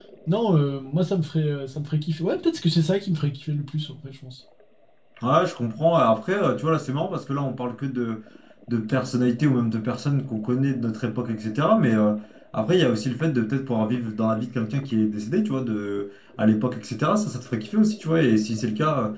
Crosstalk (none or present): none